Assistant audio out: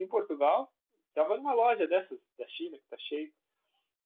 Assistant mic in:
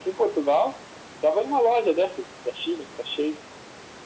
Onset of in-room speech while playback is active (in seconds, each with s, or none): none